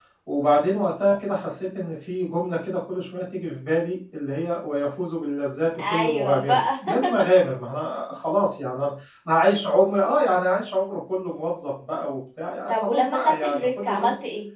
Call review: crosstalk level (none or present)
present